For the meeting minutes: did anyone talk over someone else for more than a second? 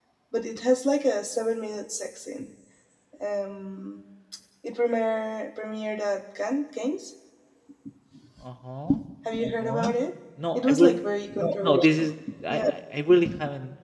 No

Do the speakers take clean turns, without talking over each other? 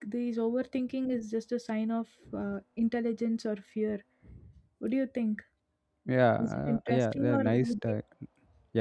No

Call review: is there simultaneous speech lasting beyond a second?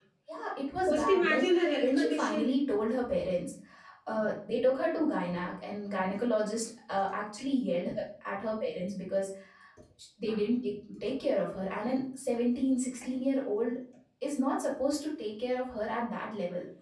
Yes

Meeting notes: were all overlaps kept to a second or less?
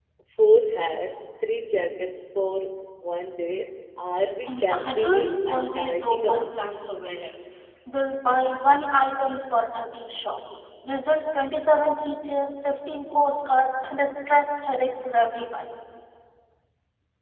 No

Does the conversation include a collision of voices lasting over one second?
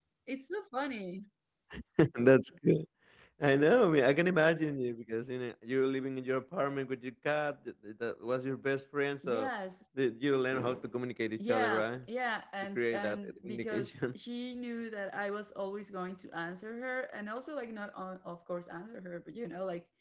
Yes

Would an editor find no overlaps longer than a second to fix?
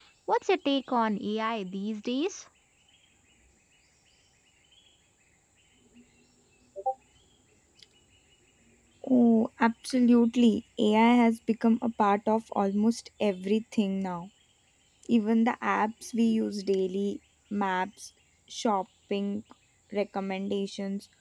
Yes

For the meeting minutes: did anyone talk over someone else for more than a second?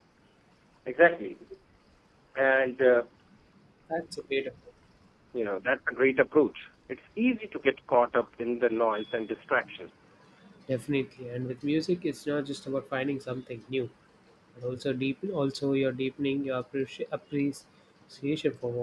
No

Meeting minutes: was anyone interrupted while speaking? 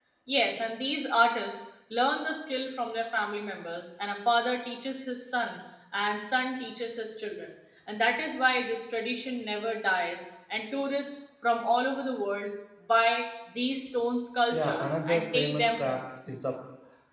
Yes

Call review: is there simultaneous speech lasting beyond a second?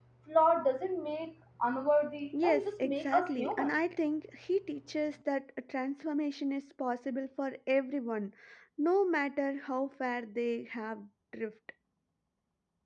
Yes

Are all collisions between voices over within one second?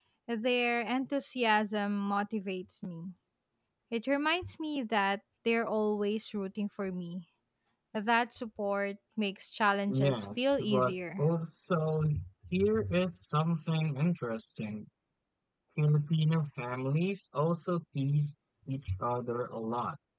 No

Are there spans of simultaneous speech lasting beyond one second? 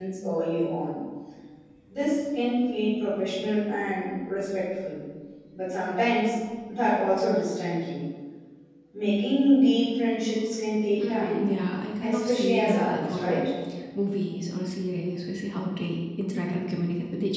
Yes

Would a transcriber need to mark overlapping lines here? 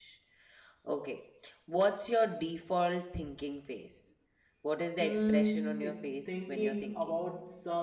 Yes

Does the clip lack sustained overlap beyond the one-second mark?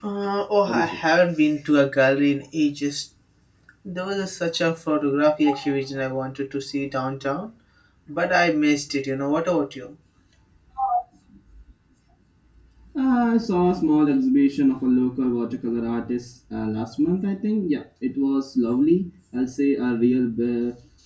Yes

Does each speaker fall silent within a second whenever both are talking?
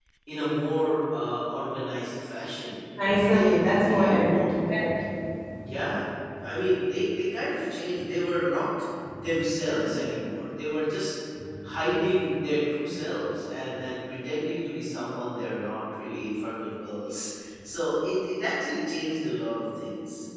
No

